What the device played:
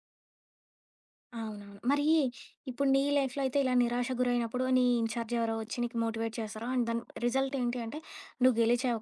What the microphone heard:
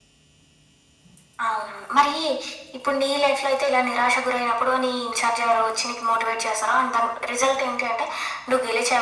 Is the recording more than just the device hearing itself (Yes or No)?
No